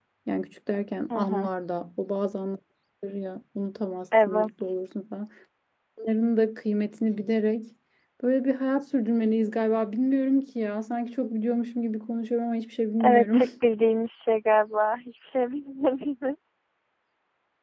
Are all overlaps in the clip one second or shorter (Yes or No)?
Yes